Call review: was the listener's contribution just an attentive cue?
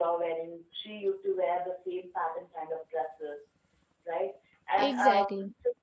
Yes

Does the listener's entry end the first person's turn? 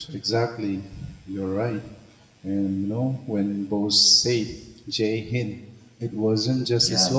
No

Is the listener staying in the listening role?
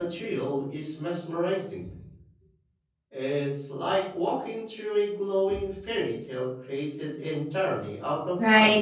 No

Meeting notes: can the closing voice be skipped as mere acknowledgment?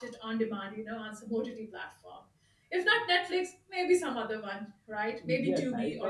No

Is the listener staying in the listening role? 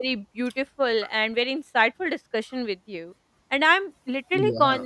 Yes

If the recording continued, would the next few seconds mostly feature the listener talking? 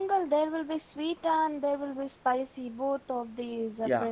Yes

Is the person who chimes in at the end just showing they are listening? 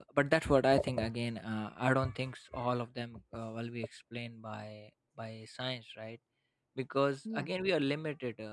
Yes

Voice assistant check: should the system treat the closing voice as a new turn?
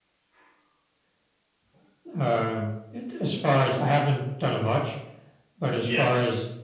No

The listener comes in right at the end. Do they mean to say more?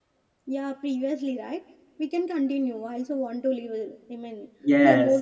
Yes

